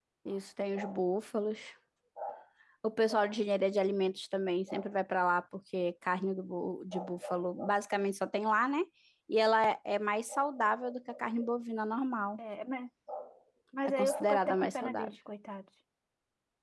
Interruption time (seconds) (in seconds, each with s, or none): 13.9 s